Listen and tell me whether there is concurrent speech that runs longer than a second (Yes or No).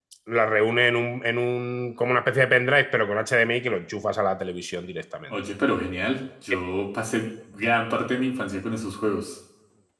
No